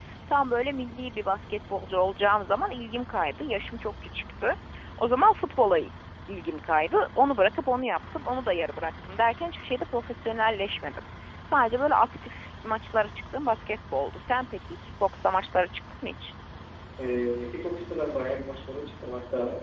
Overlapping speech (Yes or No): No